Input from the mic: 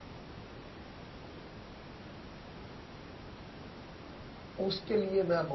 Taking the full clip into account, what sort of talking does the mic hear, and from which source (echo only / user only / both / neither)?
user only